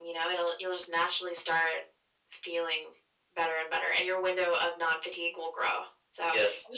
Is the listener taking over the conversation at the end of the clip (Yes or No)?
No